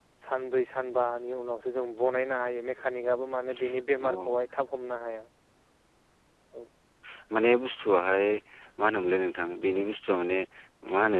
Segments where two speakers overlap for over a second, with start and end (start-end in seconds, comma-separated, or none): none